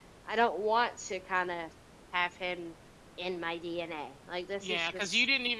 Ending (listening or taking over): taking over